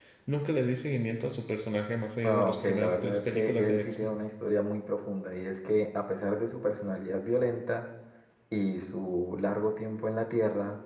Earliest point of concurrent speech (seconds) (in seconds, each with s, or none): 2.2 s